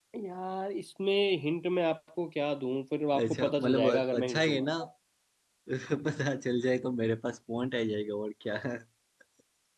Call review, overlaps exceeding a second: present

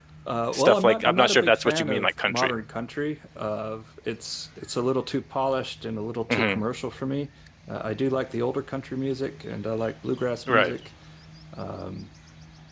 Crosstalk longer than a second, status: present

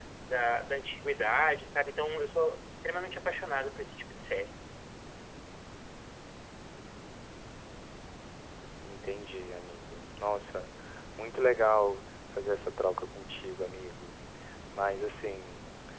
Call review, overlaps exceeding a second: none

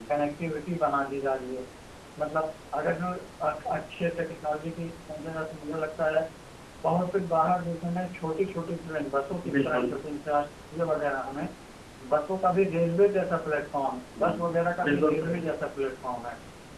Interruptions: present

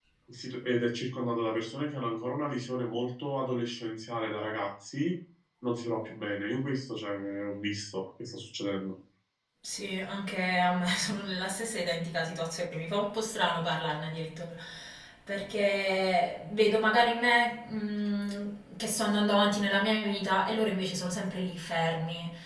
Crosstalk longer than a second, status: none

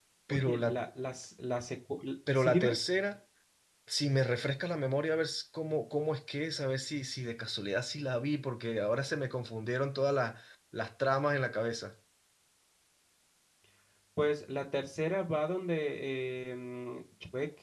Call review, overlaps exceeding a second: none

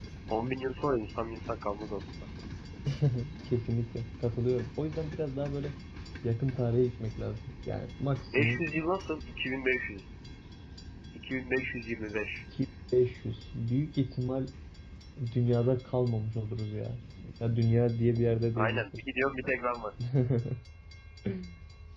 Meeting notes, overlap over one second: none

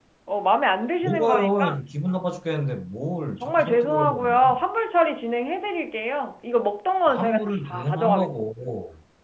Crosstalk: present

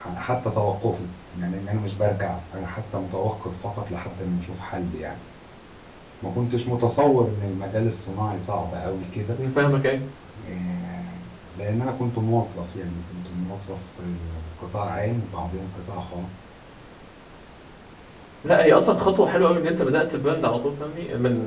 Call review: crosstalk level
none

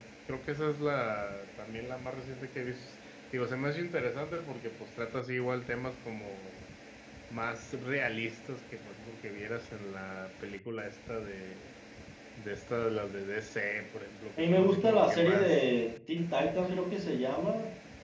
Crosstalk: present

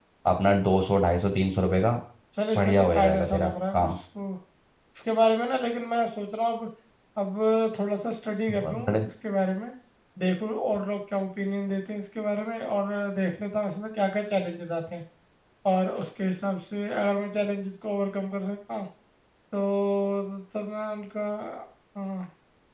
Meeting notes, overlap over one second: present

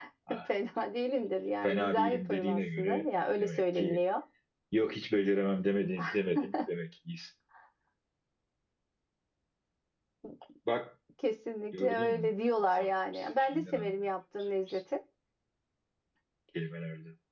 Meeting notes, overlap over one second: present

